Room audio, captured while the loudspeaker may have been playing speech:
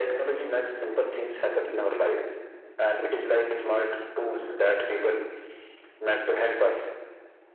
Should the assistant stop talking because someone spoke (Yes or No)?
No